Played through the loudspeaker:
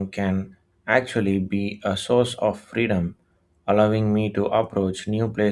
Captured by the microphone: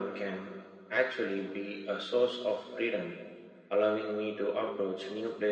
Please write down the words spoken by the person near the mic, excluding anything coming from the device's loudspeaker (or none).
none